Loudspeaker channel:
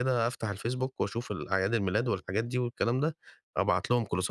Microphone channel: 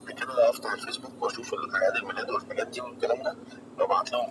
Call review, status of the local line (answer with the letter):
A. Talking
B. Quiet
B